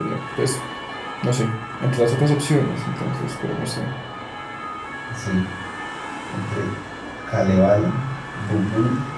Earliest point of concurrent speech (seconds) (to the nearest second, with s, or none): none